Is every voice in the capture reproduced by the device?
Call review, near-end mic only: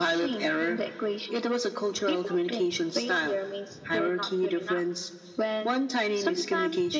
Yes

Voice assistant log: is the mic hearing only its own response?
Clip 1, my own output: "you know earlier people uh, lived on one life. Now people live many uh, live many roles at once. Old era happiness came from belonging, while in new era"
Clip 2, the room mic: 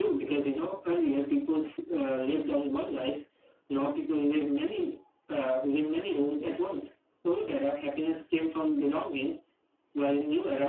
Yes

